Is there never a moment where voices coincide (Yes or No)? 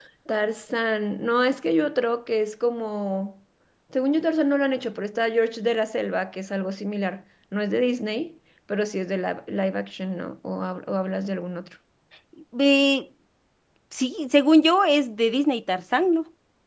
Yes